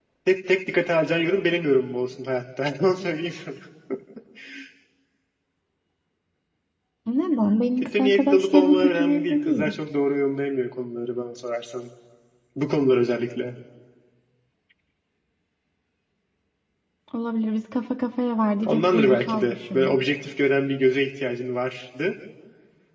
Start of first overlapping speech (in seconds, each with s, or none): 7.8 s